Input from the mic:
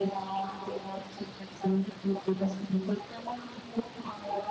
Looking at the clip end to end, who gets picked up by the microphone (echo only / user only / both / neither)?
echo only